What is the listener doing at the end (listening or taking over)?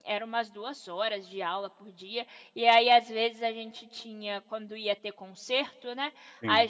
listening